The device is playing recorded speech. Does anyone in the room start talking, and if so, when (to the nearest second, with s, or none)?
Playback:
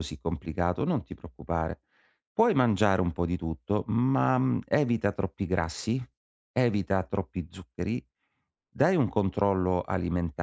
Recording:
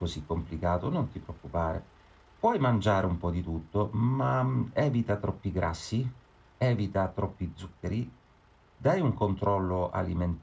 none